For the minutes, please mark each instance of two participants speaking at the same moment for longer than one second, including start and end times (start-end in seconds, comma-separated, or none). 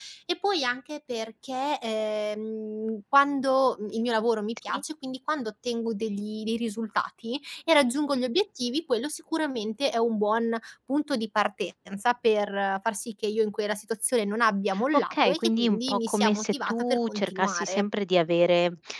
15.1-17.8